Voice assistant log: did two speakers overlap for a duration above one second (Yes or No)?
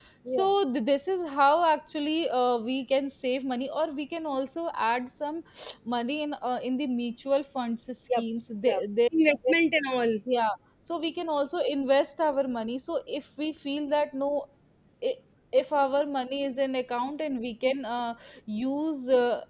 No